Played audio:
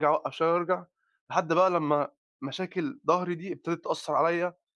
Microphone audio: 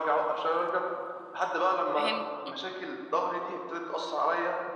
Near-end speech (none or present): present